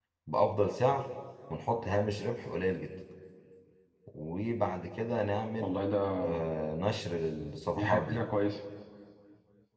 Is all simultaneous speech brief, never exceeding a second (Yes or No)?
Yes